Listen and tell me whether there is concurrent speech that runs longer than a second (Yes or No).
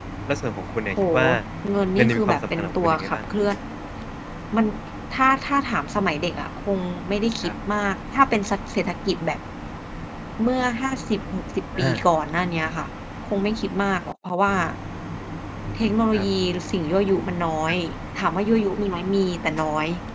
Yes